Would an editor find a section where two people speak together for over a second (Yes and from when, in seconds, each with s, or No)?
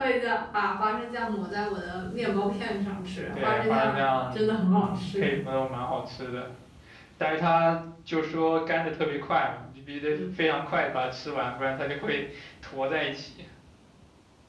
Yes, from 3.4 s